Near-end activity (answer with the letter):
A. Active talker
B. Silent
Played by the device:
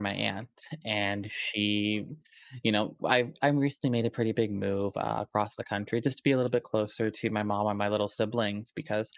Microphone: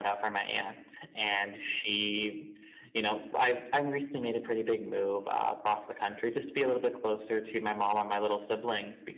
B